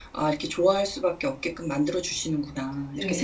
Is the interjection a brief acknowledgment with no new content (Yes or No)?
No